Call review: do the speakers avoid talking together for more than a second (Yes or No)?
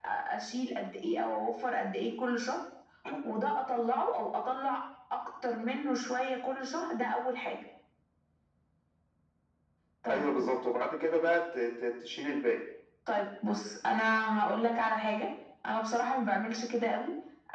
Yes